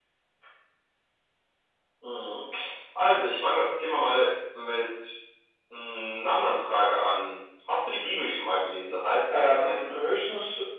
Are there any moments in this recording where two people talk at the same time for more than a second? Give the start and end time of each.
none

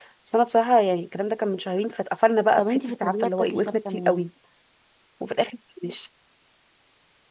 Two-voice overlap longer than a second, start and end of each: 2.6-4.3

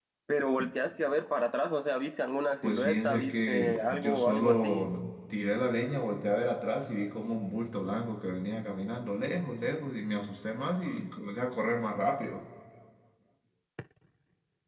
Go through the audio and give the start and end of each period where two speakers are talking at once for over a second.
2.6-4.9

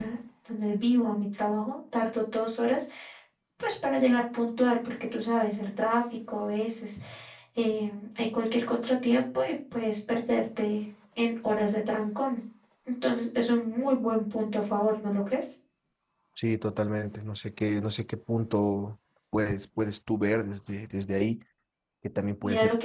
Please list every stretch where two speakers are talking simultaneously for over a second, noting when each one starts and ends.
none

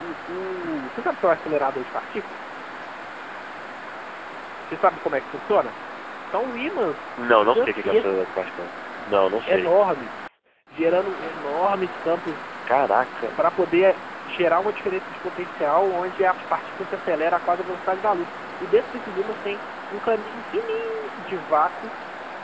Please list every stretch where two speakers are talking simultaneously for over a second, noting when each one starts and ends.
7.3-8.6

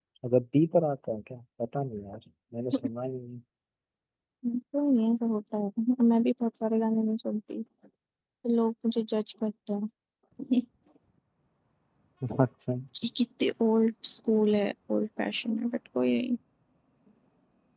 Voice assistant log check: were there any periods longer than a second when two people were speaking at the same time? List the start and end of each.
none

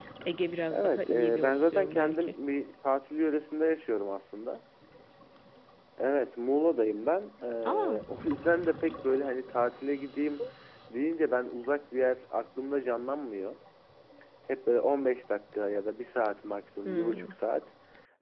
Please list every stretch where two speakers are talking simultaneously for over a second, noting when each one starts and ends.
0.7-2.4

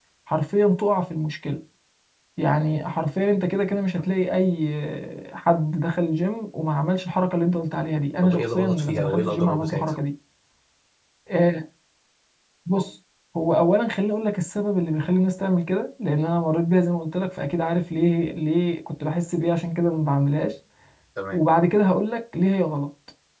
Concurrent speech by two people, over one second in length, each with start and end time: 8.2-10.0

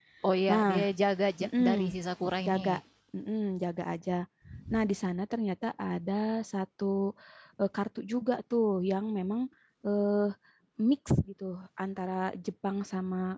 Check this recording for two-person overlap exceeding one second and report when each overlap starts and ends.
none

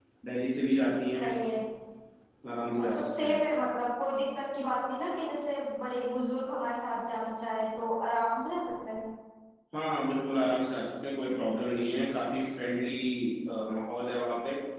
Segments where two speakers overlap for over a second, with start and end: none

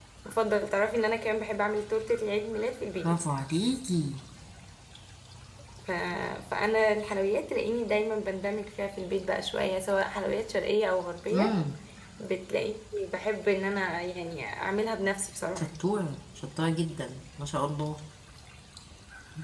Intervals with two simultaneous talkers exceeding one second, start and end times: none

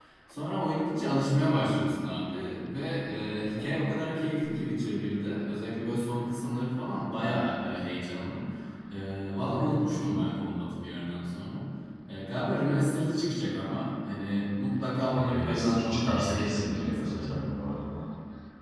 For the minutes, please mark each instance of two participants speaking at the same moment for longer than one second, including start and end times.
15.1-17.4

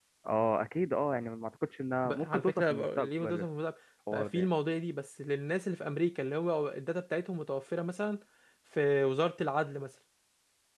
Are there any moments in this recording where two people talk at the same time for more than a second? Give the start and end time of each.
2.0-3.5

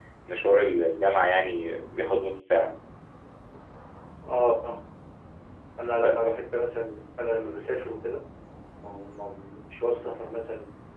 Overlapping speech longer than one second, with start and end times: none

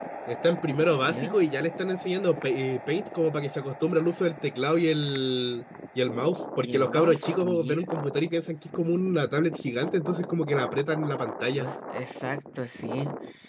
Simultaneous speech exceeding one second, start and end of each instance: 6.6-7.9

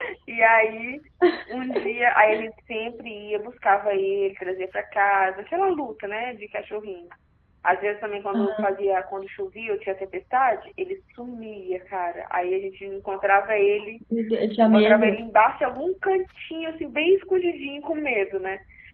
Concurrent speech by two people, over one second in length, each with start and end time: none

